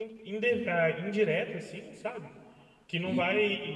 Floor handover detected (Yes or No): No